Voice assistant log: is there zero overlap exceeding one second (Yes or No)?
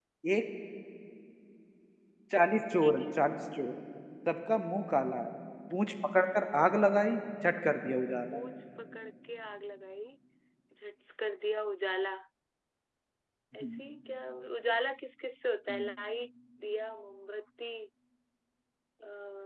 Yes